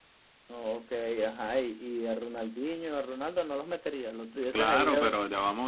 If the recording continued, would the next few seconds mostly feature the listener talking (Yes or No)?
Yes